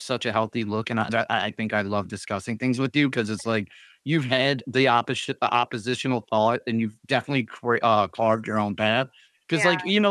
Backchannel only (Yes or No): Yes